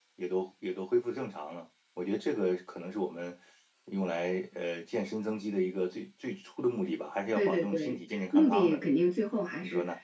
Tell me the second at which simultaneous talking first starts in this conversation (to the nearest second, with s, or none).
7 s